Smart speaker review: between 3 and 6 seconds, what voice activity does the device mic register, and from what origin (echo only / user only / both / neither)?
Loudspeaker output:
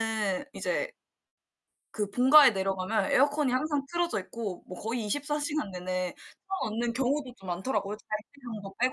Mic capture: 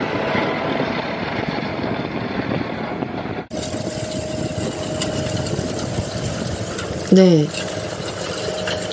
neither